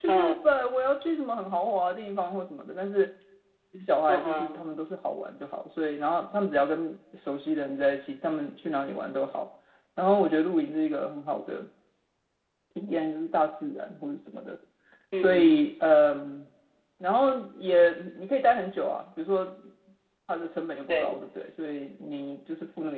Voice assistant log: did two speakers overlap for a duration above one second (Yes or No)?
No